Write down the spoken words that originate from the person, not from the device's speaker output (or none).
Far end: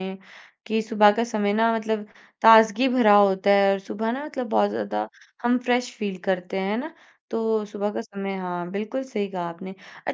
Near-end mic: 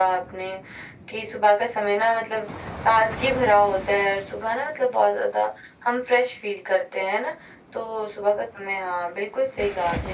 none